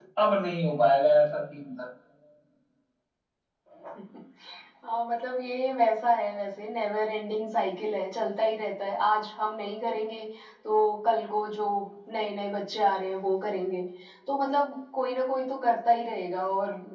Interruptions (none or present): none